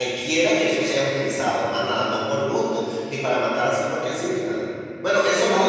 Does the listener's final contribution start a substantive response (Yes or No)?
Yes